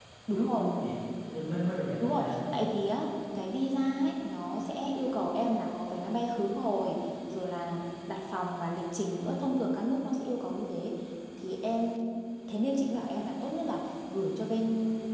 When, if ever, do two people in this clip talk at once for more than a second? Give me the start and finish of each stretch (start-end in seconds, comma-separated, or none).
none